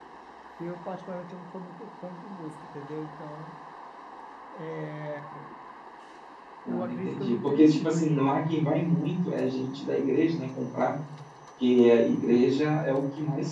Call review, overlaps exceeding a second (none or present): present